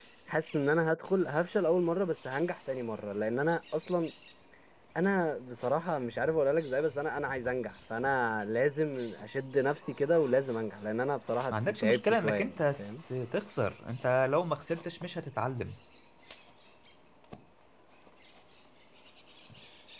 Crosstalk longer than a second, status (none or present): present